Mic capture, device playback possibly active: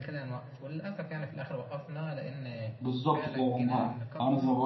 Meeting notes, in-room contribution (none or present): present